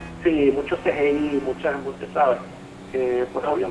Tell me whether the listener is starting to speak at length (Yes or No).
No